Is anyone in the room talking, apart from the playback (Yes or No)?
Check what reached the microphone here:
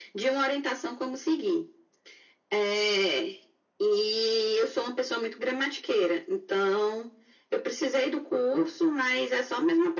No